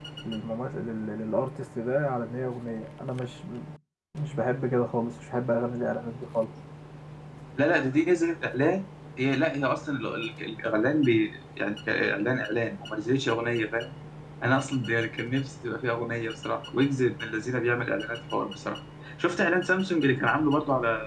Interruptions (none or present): none